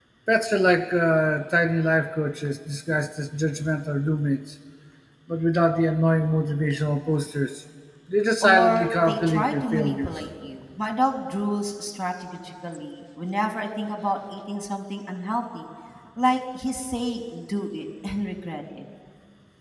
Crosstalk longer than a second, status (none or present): present